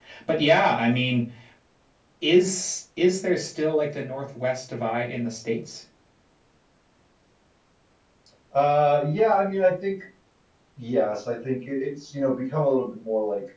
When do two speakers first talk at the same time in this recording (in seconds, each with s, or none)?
none